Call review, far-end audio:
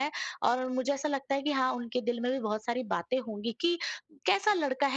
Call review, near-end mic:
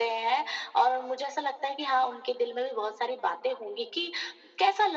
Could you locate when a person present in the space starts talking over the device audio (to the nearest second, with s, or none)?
none